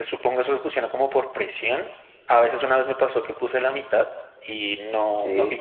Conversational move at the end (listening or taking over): listening